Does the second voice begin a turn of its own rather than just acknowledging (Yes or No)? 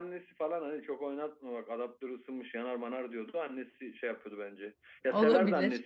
No